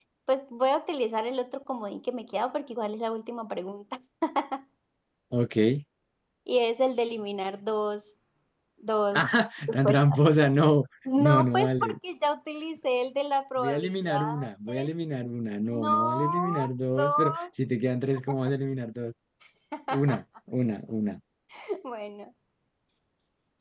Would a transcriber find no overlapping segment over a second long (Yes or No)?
No